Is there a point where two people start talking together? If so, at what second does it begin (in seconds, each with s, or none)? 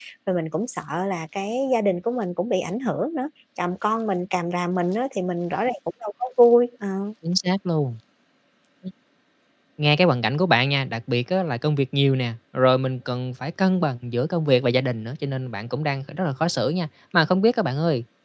none